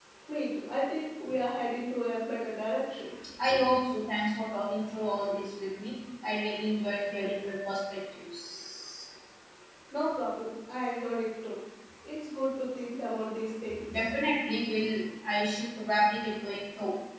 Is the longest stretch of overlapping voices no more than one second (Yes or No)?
Yes